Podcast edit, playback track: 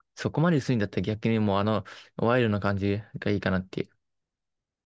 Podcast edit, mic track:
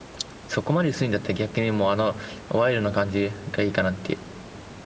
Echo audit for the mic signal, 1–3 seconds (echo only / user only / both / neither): echo only